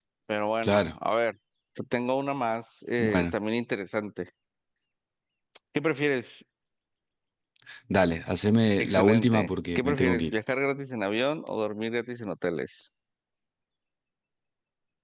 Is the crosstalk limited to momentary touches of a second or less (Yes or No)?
No